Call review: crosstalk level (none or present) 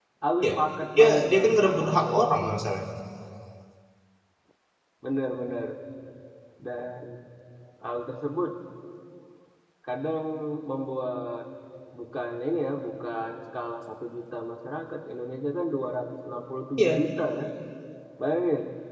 present